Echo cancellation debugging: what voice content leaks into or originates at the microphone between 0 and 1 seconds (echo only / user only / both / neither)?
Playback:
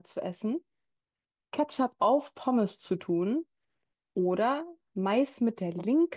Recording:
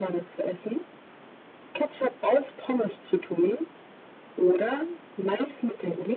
echo only